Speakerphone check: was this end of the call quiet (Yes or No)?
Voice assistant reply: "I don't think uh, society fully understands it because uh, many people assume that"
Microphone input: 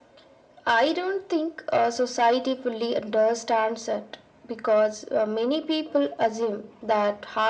Yes